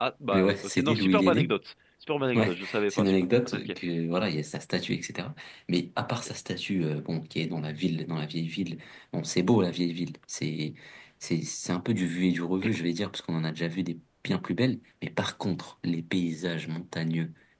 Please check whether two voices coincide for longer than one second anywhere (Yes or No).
Yes